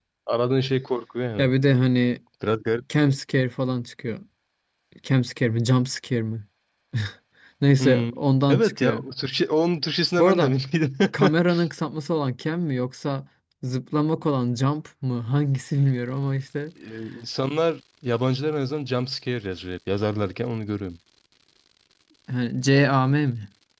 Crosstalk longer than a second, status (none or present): none